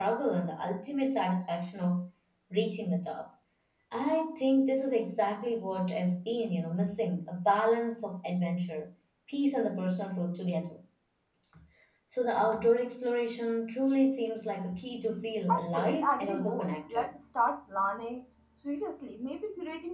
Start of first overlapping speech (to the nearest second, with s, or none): 15 s